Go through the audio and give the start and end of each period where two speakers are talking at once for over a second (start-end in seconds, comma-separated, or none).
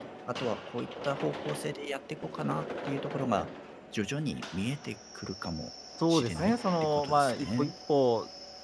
6.1-7.7